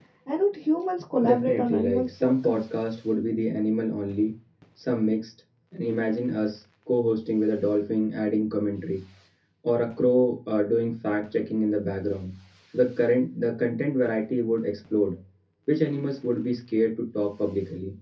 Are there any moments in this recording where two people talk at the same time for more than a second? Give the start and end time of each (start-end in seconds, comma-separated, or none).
1.2-2.6